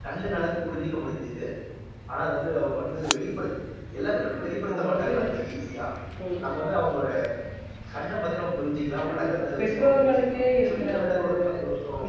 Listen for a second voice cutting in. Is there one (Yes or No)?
Yes